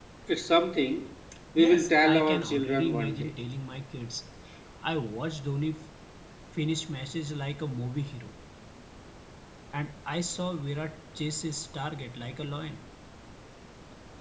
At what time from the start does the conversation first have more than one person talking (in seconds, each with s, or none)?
1.6 s